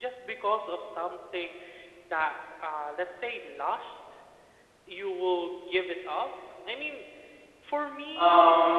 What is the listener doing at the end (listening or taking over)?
taking over